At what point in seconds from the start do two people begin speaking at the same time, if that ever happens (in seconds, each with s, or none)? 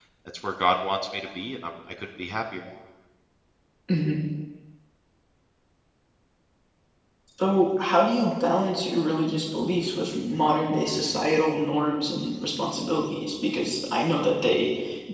none